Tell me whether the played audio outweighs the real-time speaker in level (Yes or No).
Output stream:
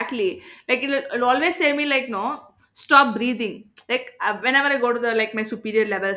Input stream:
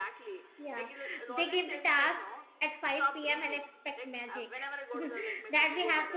No